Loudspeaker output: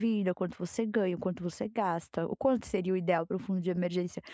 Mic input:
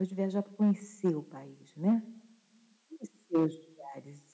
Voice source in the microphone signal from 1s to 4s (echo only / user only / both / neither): user only